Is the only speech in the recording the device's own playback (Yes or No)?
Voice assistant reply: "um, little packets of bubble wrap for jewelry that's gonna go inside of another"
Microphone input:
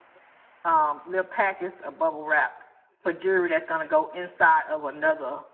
Yes